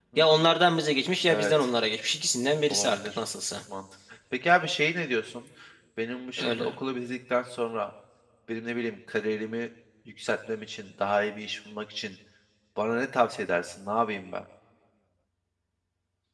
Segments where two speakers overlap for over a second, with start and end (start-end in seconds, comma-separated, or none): none